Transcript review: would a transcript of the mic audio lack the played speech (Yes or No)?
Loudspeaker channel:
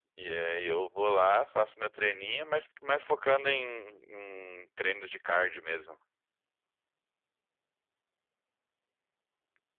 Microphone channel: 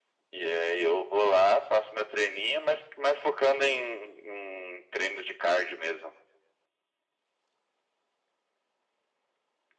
No